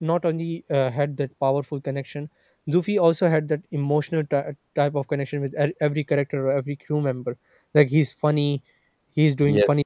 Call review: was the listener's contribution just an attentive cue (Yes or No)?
Yes